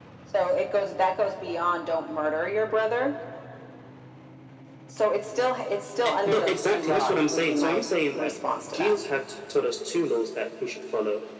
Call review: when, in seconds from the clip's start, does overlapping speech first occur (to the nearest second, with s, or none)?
6 s